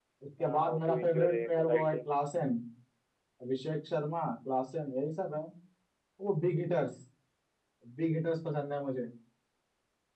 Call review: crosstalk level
present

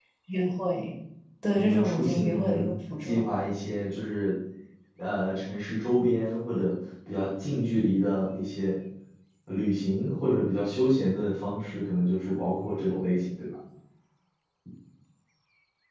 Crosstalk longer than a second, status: present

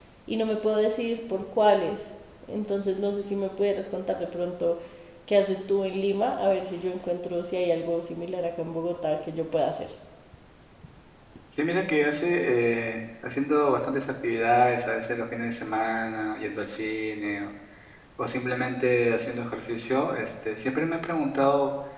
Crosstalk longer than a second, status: none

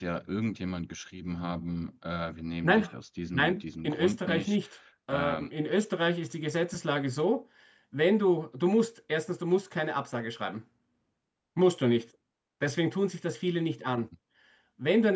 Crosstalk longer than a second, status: present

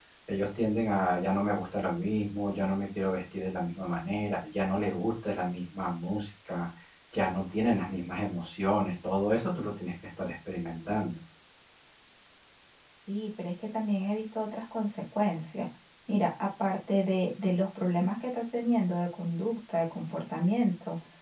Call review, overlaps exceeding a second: none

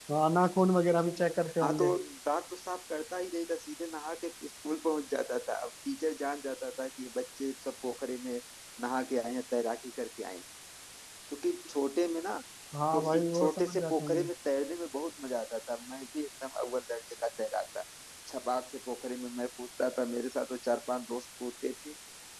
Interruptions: present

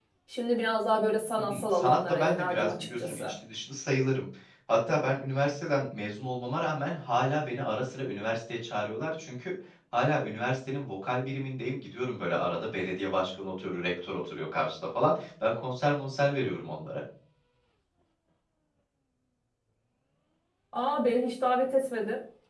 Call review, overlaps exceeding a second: present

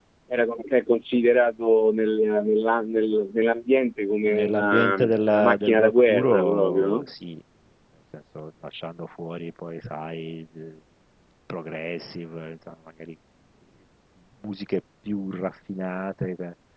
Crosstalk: present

